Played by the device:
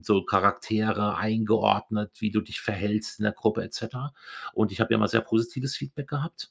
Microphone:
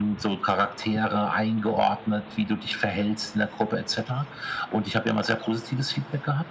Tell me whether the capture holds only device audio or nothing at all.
Yes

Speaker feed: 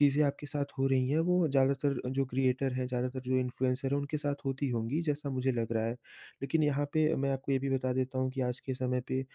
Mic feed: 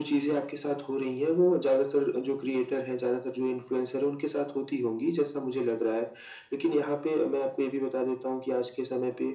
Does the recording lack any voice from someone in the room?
Yes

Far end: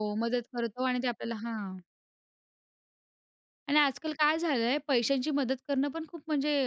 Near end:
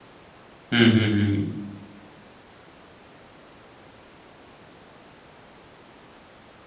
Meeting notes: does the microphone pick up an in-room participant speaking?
Yes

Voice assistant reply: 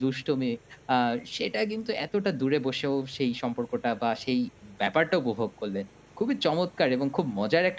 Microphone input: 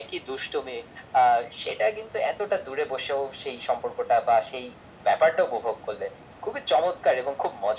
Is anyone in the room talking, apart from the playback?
No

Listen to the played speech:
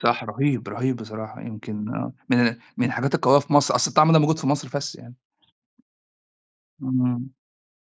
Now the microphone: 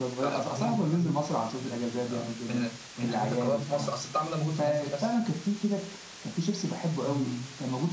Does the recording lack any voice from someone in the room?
No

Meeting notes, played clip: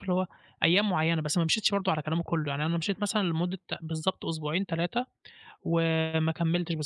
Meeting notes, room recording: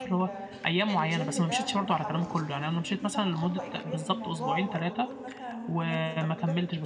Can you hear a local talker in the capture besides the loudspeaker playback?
Yes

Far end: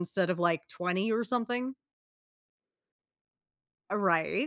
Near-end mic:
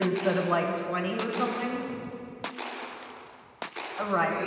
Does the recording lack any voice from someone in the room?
Yes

